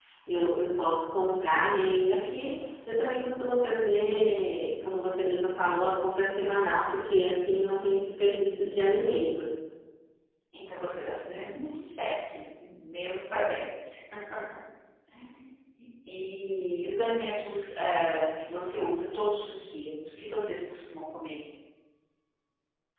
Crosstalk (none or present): none